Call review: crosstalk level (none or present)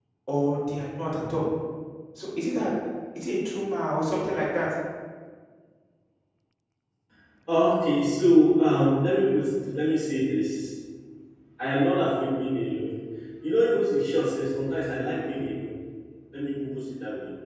none